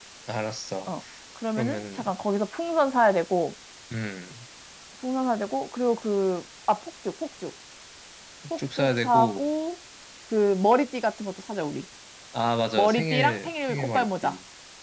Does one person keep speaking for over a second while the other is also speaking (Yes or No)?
Yes